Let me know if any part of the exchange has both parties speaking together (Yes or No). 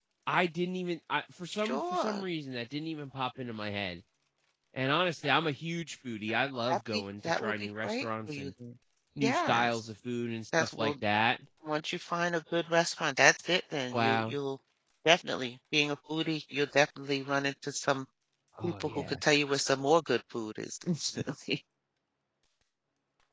Yes